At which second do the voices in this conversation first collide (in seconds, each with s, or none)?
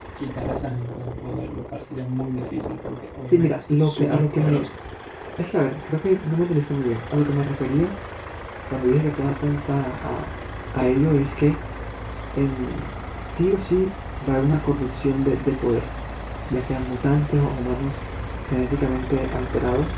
3.3 s